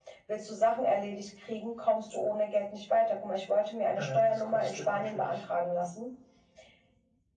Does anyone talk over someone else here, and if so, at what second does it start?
4.0 s

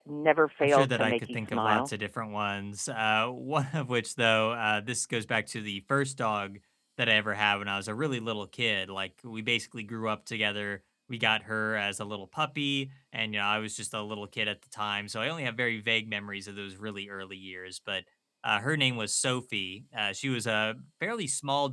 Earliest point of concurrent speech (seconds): 0.6 s

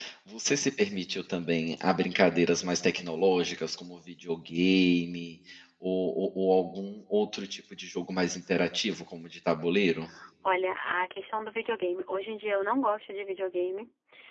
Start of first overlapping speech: none

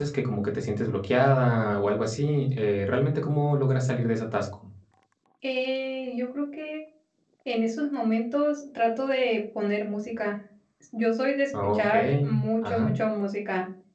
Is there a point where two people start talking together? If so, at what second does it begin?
11.6 s

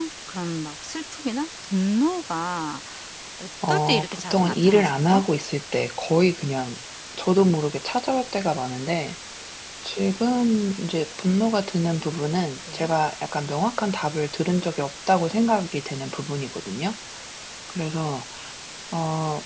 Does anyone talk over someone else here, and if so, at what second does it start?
3.7 s

